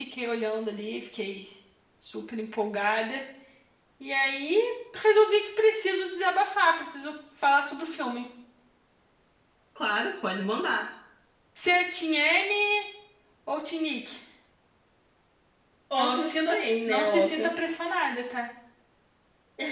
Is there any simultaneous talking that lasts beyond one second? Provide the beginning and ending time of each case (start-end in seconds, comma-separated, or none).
16.0-17.5